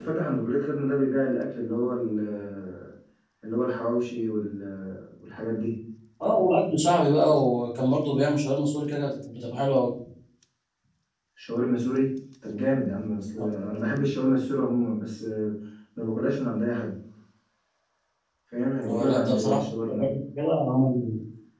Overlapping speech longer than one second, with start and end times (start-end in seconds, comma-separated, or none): 18.9-20.1